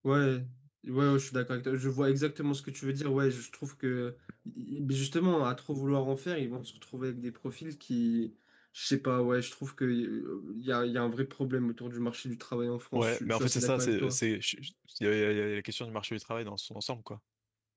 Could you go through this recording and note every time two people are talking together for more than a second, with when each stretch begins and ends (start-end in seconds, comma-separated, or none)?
12.9-14.2